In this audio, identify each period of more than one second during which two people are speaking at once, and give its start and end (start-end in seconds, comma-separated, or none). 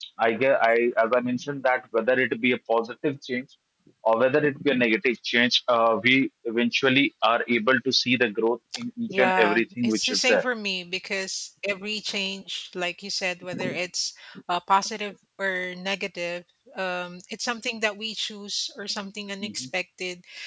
9.1-10.4